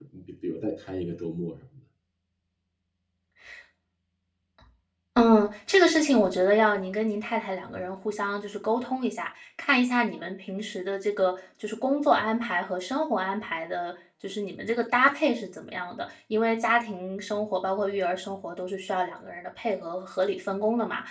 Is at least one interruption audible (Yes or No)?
No